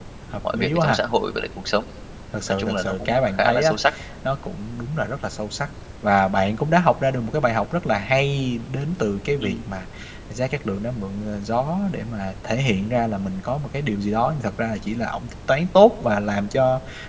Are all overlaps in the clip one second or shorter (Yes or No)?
No